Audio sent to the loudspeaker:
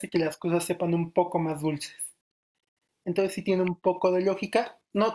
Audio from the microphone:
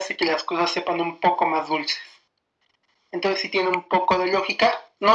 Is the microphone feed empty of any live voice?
Yes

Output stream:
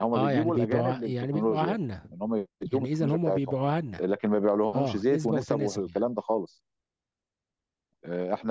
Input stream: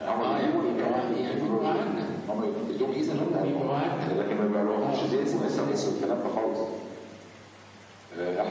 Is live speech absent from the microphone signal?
Yes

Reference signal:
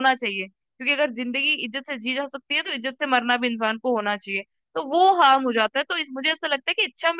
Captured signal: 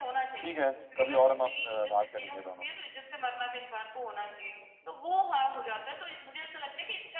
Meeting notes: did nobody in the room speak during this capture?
No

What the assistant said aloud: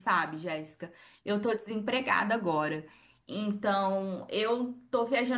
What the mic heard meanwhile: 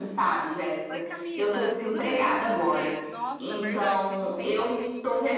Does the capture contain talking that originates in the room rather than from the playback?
Yes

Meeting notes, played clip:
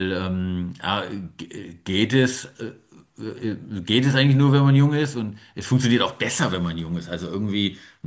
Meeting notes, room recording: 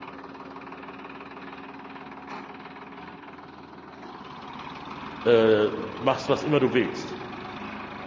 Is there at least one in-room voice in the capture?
Yes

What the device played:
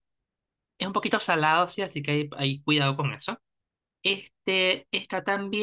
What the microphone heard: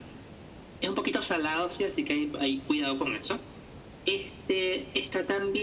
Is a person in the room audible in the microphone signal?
No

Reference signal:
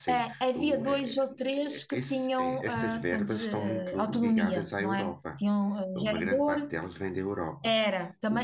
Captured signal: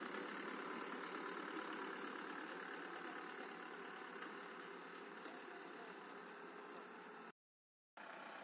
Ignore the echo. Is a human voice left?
No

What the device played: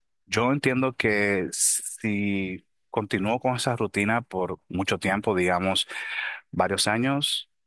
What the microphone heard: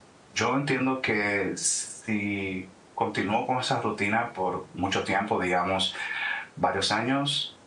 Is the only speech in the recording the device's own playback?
Yes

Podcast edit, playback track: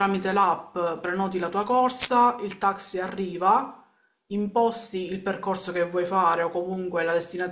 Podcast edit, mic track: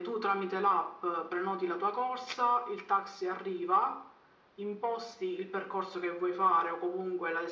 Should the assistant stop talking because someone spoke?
No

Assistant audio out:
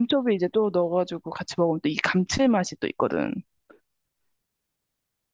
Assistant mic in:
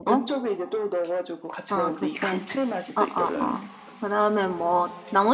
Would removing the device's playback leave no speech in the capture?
No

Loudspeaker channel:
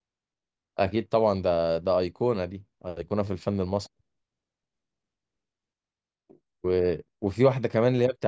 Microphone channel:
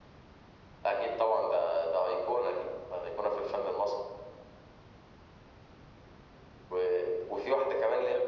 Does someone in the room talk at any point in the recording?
No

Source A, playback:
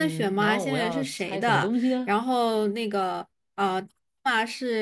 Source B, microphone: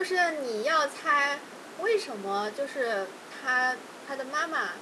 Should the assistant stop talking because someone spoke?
Yes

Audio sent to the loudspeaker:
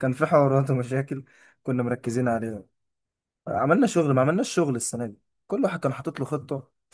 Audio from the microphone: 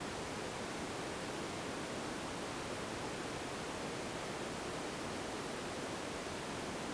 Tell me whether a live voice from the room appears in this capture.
No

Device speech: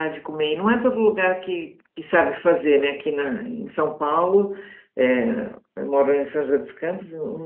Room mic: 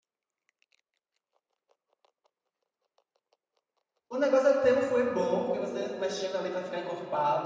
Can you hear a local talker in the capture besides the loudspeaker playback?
Yes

